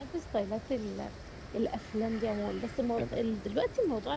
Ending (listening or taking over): listening